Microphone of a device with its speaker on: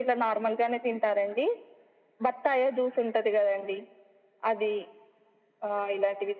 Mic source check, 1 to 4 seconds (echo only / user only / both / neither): echo only